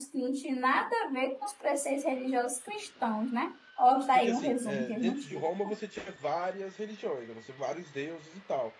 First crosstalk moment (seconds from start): 4 s

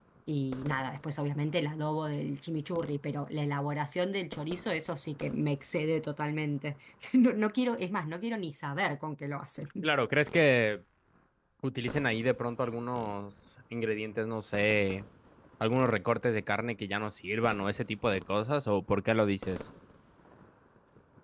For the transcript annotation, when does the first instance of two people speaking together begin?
none

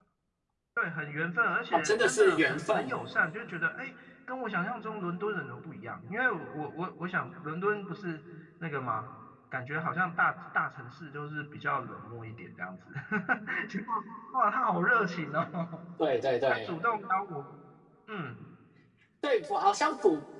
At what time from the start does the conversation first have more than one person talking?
2 s

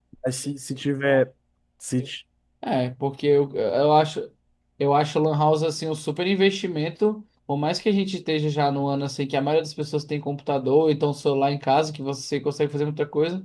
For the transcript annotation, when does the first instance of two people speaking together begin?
none

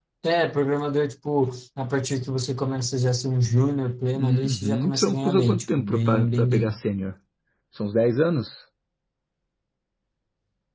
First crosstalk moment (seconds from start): 4 s

